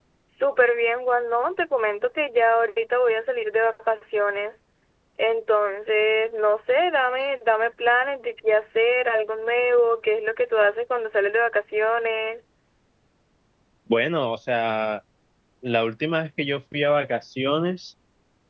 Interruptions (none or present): none